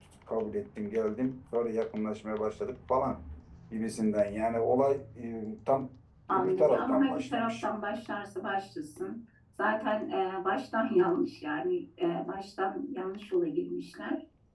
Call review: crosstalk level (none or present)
present